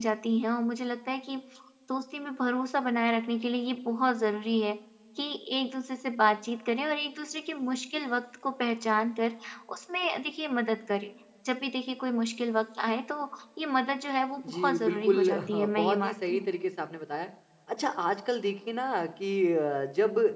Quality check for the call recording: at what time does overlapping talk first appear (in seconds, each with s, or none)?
14.4 s